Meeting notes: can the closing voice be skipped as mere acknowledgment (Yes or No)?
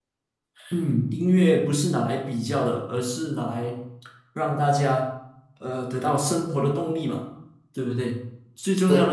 Yes